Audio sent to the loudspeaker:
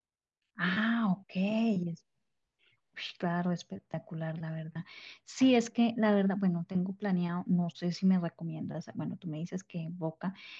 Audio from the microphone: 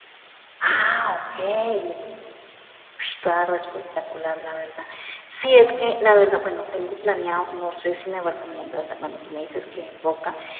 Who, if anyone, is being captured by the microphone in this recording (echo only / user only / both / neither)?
echo only